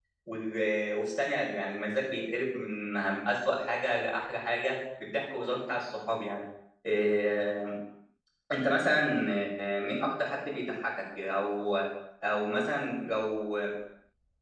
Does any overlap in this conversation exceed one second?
No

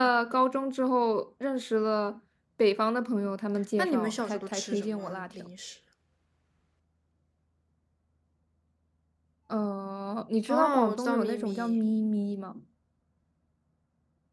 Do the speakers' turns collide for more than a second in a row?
Yes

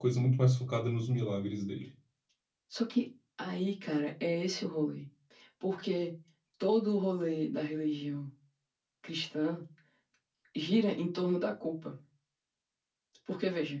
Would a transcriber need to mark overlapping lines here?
No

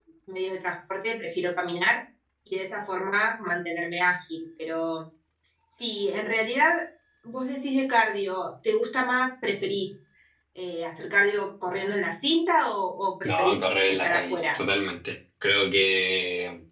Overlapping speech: Yes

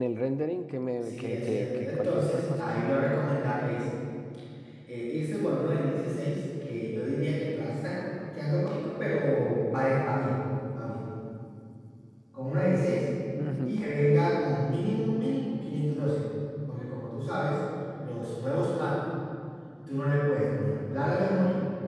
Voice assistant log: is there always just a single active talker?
No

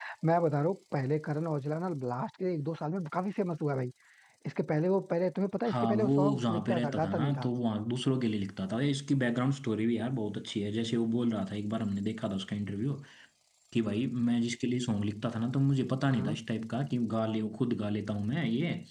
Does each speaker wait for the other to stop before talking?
No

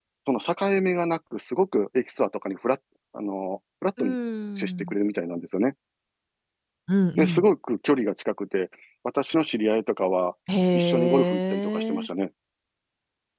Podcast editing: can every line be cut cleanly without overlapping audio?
No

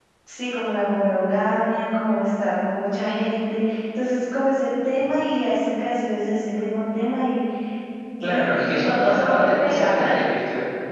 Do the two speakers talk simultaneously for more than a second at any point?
Yes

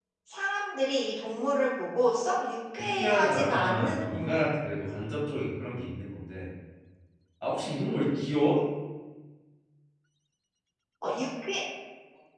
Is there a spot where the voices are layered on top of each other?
Yes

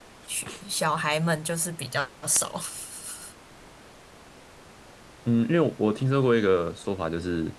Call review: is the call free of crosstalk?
Yes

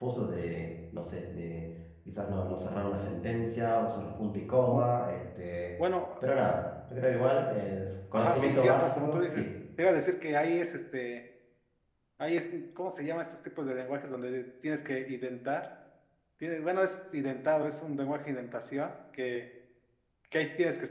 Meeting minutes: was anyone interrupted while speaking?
Yes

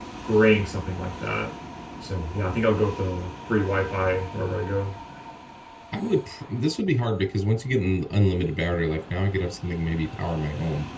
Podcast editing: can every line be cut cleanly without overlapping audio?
Yes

